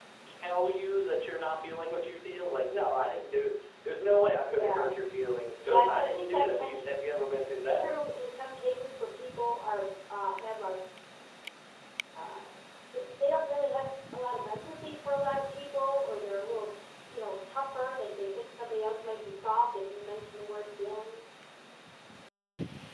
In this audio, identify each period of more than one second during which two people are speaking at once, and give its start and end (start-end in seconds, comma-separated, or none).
5.6-6.9